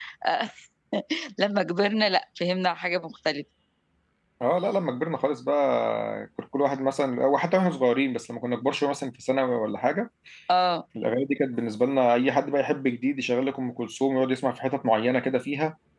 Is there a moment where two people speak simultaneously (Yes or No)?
No